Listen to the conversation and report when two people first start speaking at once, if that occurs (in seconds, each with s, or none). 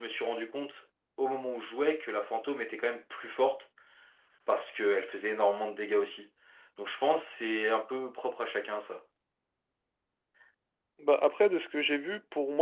none